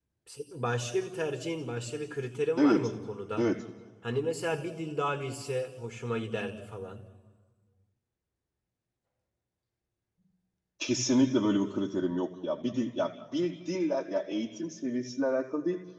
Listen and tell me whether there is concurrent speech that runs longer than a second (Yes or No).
No